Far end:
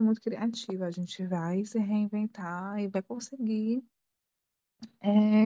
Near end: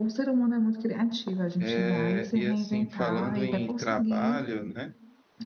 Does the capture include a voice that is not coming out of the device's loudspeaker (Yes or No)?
Yes